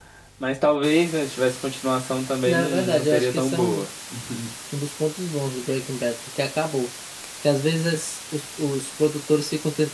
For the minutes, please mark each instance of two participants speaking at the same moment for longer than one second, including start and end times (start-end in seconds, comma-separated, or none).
2.5-3.9